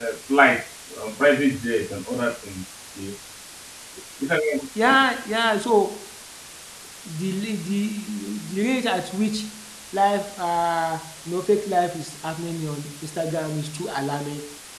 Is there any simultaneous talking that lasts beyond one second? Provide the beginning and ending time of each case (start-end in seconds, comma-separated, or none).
none